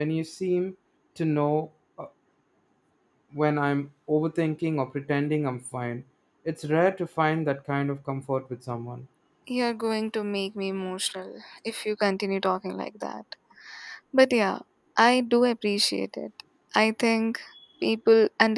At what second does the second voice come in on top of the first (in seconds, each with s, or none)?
none